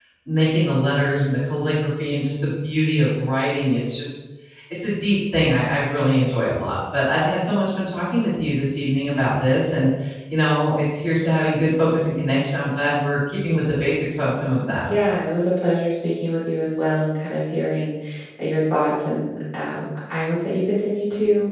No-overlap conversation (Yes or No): Yes